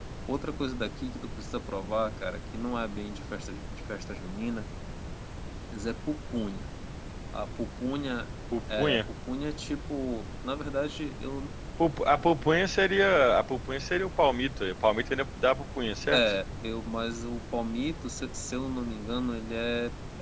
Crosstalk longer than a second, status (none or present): none